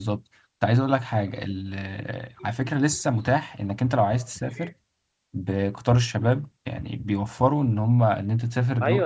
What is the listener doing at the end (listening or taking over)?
taking over